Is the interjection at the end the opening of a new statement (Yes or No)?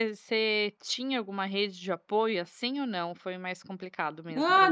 Yes